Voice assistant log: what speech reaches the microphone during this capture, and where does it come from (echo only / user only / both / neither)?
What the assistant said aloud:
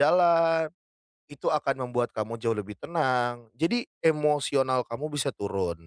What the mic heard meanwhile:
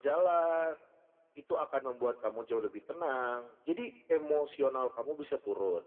echo only